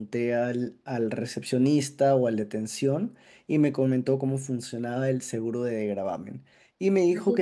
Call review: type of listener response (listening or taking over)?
listening